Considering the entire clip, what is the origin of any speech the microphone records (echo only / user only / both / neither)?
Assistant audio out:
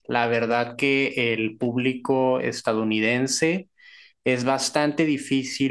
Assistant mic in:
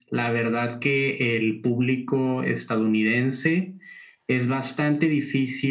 echo only